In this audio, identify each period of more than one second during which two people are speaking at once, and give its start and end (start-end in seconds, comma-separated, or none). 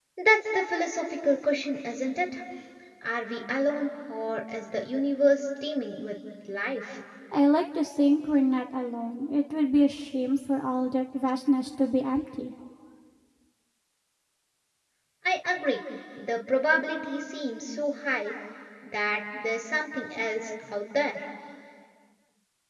none